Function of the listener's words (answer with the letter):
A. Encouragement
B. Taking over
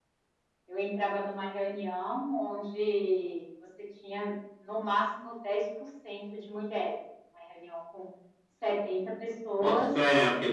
B